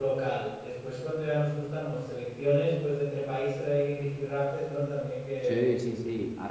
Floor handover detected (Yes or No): Yes